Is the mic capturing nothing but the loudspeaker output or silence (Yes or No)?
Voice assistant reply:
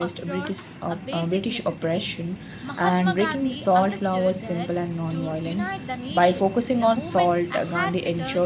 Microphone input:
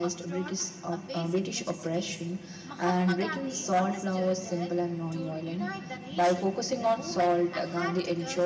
Yes